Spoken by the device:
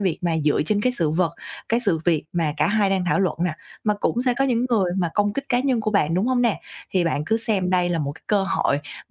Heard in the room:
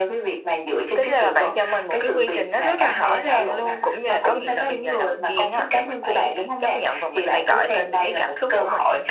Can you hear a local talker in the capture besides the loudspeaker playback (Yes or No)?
Yes